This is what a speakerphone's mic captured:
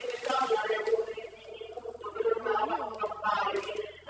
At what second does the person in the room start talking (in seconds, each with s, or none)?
2.4 s